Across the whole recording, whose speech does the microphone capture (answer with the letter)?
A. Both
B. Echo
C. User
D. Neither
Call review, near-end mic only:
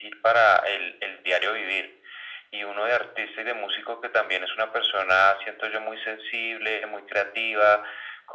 B